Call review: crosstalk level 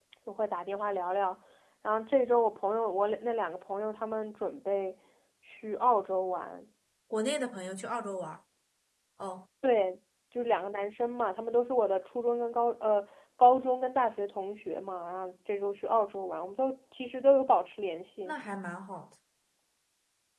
none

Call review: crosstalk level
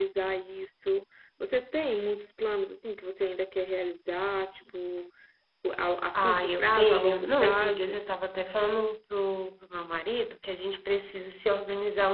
present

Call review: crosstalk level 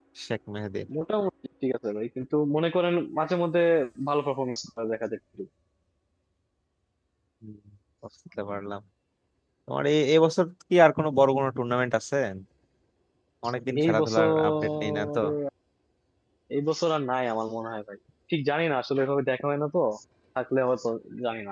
present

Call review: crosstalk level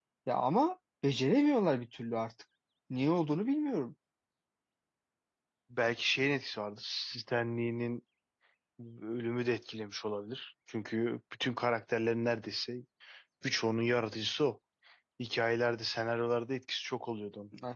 none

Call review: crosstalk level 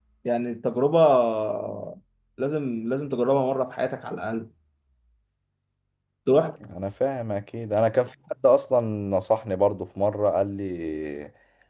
none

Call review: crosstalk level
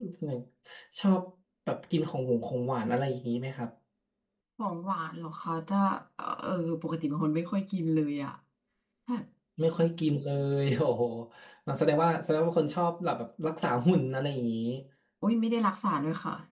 none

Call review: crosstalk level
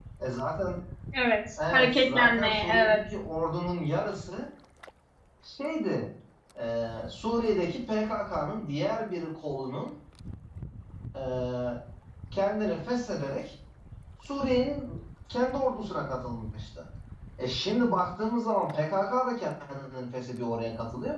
present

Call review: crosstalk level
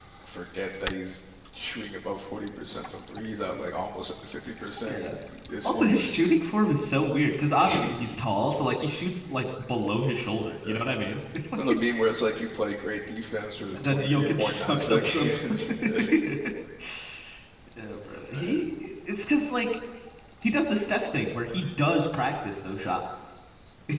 present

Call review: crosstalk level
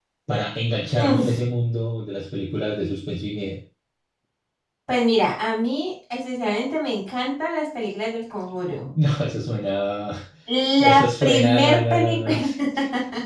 present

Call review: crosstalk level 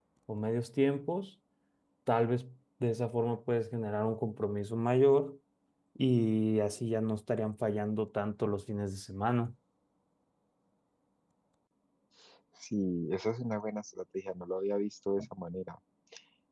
none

